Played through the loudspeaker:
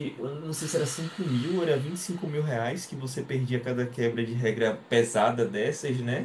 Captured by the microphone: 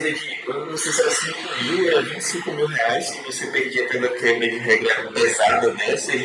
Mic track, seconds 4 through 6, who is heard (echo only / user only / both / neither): echo only